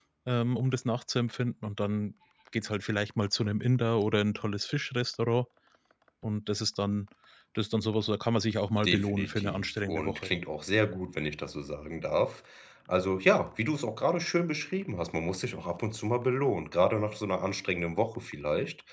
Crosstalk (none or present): present